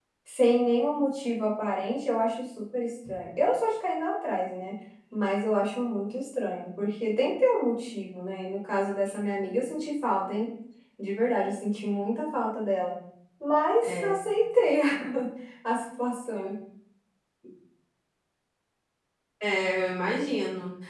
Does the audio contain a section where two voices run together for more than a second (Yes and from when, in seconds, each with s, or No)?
No